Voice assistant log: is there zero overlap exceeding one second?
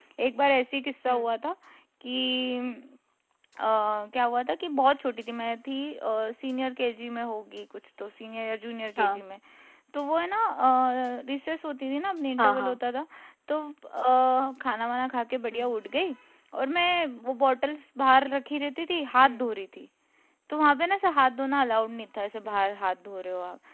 Yes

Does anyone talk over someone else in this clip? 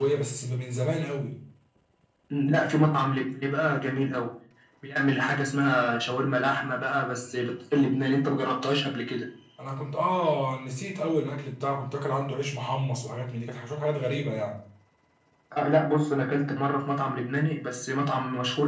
No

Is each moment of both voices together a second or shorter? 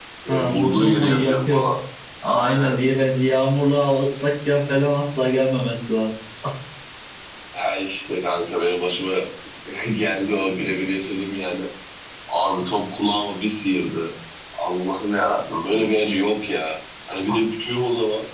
No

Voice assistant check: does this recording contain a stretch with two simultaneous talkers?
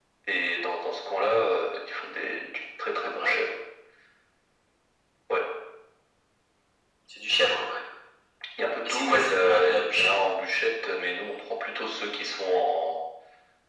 Yes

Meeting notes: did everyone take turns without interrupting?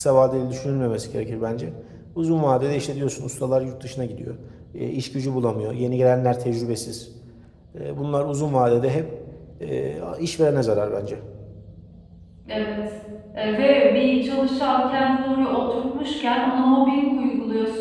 Yes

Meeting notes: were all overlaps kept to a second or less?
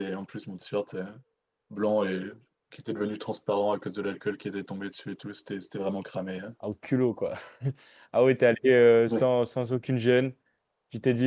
Yes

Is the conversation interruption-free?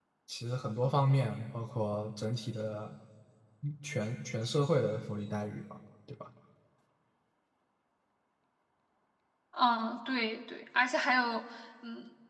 Yes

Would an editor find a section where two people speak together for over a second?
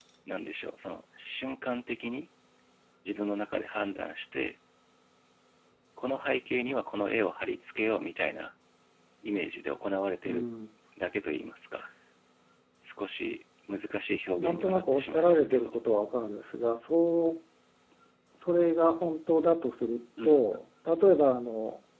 Yes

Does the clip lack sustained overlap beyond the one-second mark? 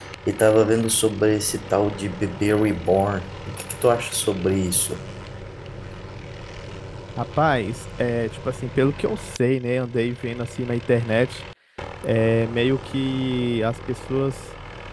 Yes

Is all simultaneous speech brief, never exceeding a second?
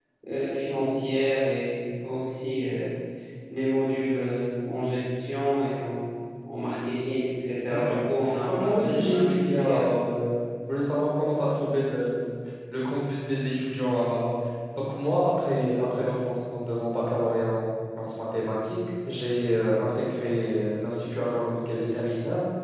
No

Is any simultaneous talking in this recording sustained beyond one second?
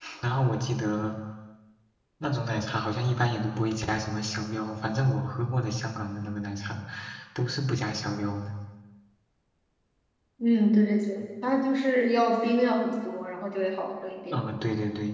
No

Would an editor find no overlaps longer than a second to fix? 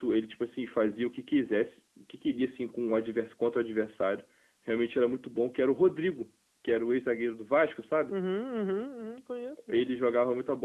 Yes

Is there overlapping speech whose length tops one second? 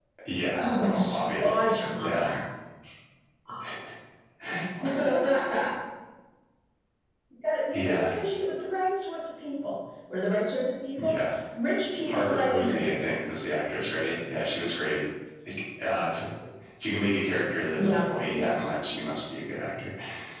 Yes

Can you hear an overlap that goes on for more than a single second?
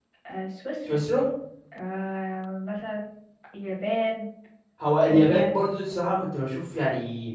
No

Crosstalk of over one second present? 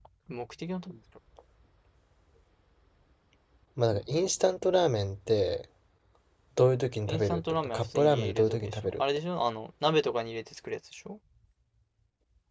Yes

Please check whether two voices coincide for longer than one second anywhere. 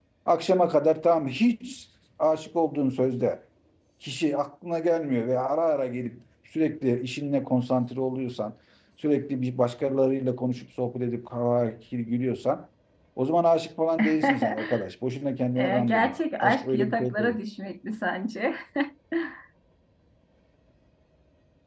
Yes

